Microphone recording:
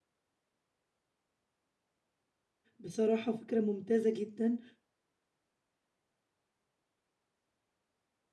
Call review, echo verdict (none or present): none